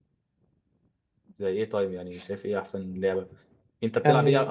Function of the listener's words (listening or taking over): listening